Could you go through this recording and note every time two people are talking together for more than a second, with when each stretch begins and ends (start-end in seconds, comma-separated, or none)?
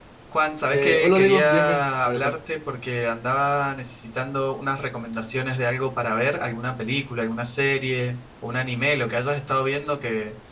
0.7-2.3